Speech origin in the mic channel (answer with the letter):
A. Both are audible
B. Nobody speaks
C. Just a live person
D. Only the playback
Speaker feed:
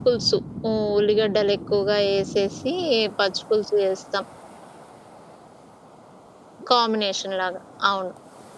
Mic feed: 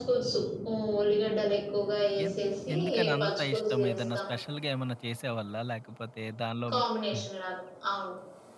A